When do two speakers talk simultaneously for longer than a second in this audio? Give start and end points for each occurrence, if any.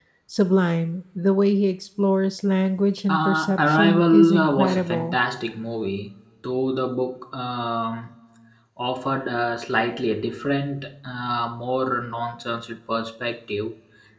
3.1-5.2

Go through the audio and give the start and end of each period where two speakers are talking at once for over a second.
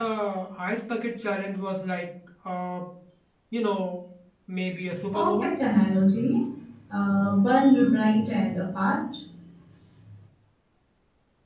none

